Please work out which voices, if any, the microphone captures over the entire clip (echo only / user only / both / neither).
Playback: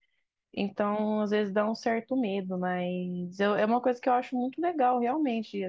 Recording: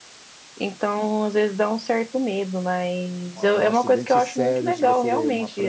both